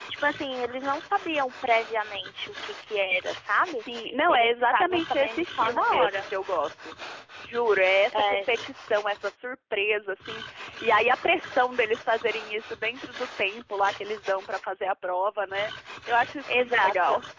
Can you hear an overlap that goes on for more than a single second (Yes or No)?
Yes